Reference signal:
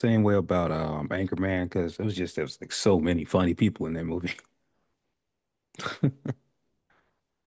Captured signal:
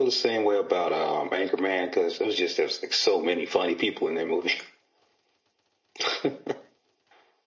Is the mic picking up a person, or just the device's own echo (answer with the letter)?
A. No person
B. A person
A